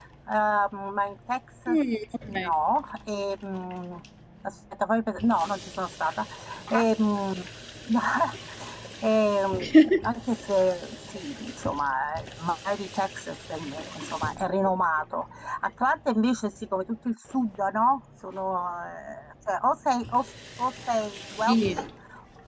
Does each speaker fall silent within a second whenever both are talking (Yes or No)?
Yes